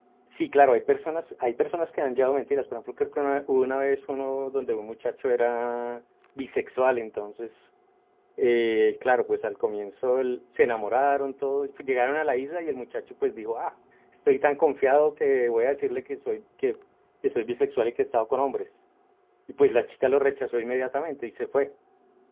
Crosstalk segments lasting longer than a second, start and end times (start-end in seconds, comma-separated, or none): none